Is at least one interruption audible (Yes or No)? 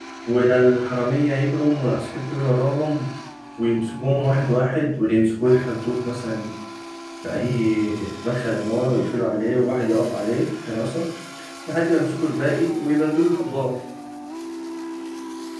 No